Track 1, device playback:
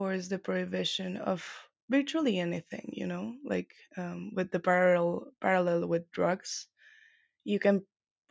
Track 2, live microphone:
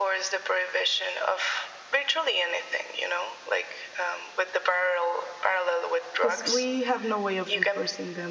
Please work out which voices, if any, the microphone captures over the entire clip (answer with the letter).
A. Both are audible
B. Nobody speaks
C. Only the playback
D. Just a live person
A